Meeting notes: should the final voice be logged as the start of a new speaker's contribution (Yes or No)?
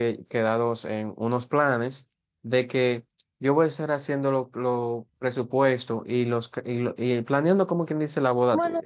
Yes